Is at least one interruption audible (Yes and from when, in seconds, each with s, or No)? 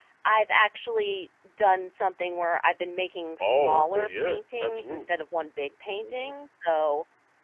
Yes, from 3.4 s